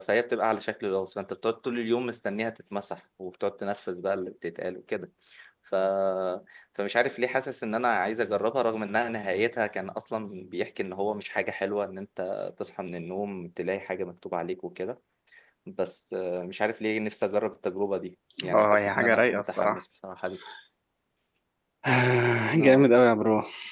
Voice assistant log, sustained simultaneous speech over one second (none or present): present